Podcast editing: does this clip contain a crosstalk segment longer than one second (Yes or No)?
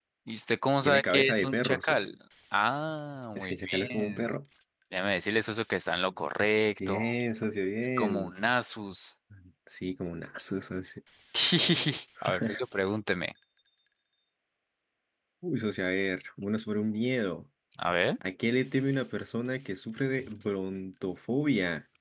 Yes